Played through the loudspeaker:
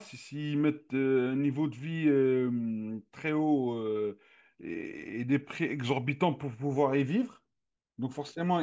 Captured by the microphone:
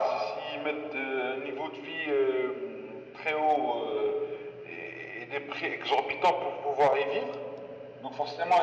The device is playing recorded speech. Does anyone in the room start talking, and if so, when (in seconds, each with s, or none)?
none